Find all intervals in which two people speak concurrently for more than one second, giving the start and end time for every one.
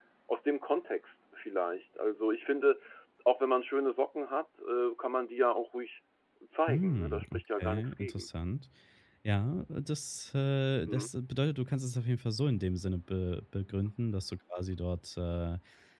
6.7-8.3

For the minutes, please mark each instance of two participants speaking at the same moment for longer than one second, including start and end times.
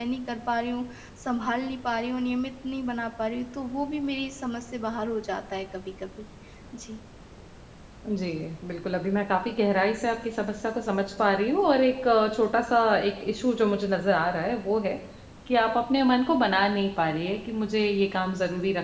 none

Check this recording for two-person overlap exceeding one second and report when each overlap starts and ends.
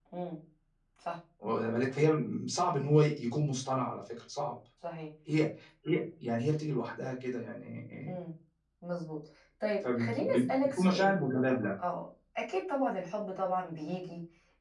9.8-11.1

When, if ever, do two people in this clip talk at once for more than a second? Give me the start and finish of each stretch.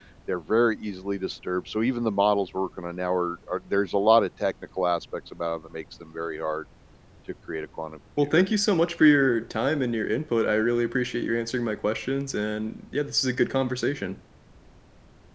none

